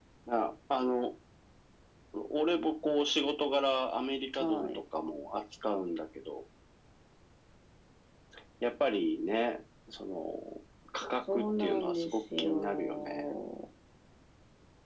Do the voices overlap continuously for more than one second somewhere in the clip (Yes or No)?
Yes